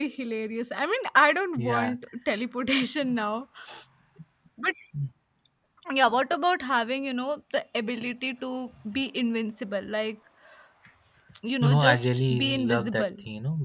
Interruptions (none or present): present